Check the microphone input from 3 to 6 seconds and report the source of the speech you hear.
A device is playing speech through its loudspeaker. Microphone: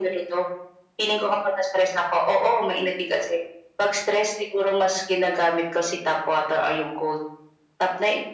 echo only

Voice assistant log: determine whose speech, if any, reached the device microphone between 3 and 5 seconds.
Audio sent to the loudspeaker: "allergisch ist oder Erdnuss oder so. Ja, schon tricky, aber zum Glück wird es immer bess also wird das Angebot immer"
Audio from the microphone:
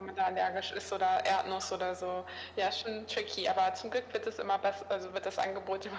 echo only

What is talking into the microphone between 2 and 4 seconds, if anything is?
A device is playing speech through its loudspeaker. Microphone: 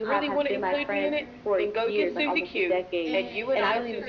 both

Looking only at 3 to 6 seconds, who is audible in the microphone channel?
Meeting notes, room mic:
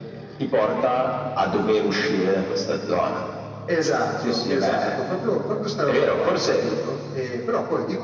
echo only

